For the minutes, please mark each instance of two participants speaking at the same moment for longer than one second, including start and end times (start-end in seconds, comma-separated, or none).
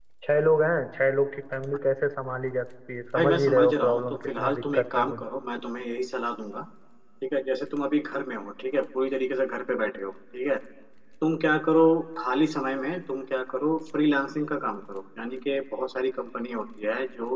3.2-5.2